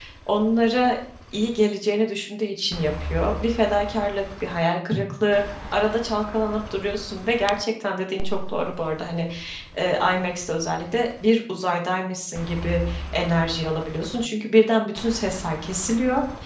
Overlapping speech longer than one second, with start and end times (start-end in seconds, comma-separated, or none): none